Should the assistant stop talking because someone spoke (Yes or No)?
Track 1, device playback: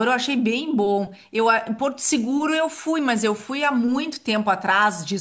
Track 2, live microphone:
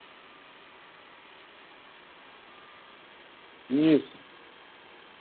Yes